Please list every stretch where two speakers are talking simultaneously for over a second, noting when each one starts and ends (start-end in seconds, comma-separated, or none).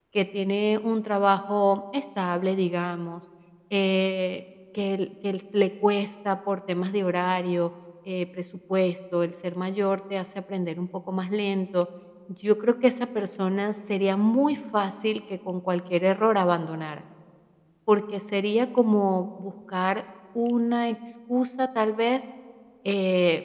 none